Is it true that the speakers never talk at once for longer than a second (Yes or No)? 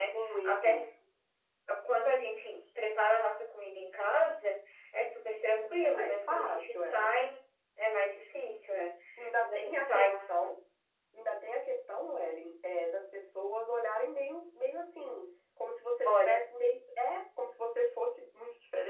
No